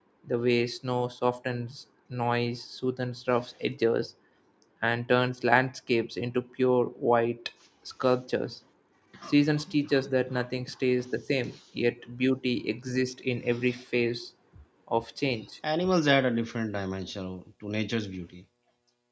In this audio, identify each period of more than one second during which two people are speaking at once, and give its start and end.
none

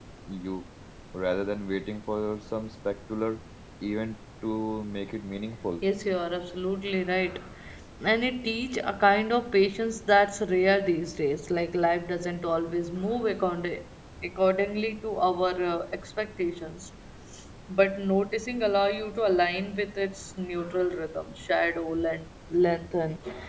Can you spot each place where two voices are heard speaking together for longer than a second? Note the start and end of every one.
none

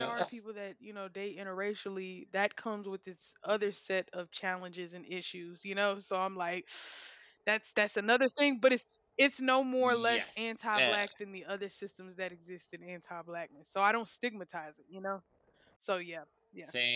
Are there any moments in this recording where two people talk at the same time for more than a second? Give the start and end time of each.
9.8-11.0

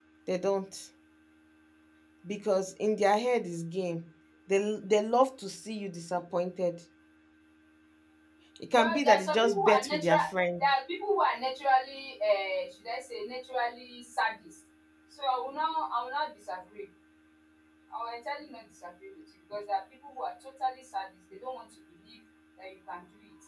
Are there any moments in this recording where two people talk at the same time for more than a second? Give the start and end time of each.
8.8-10.2

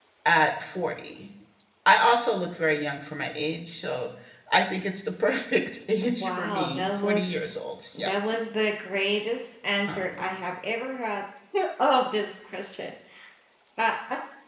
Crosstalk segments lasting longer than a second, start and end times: 6.2-7.5

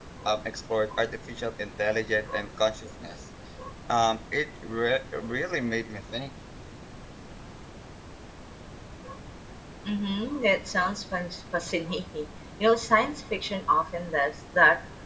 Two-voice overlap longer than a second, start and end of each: none

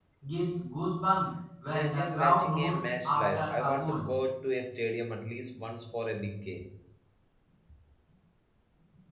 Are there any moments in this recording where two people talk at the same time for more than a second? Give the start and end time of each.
1.7-4.1

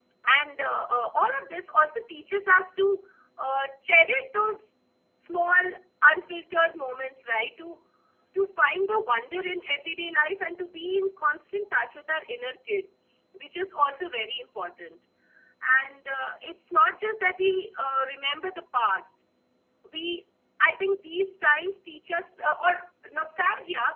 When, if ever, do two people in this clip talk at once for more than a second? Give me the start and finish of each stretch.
none

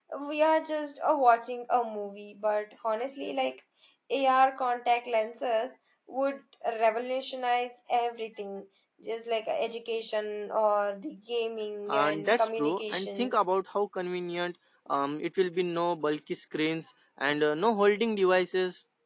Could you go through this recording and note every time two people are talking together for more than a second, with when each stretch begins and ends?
11.9-13.3

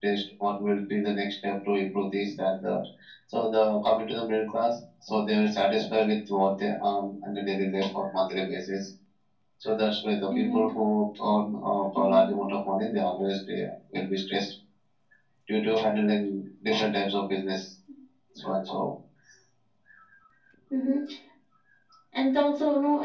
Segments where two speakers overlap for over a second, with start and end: none

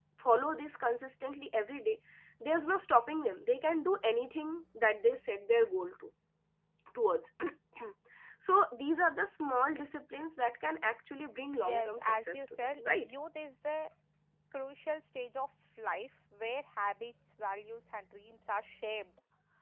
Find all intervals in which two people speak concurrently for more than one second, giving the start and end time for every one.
11.5-13.1

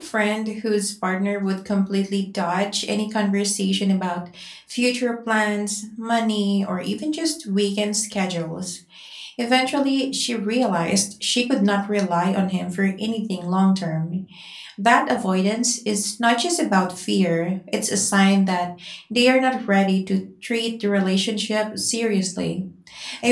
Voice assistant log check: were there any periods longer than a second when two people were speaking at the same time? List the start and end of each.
none

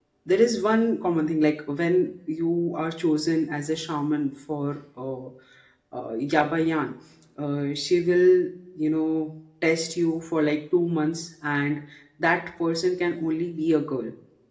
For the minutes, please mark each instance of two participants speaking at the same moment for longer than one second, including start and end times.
none

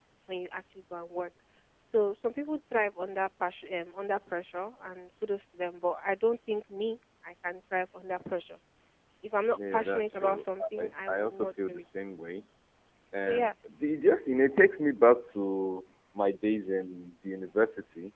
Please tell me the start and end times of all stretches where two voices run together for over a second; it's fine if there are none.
9.7-11.8

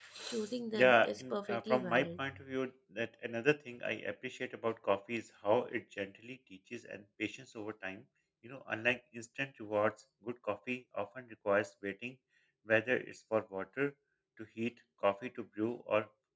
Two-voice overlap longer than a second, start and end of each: 0.7-2.3

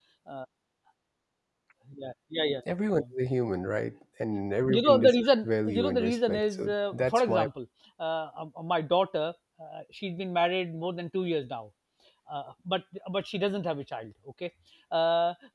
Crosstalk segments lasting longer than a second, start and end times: 4.8-7.5

